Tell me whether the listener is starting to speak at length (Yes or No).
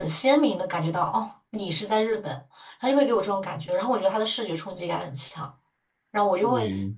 No